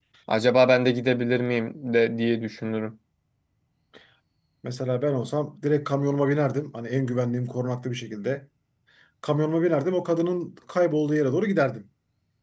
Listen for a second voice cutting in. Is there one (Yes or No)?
No